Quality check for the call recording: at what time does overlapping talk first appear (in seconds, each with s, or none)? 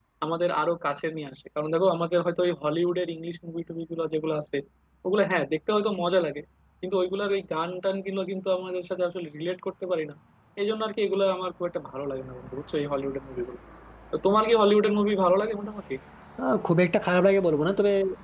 none